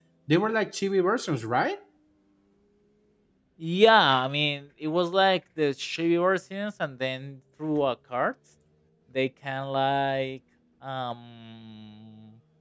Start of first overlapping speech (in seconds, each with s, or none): none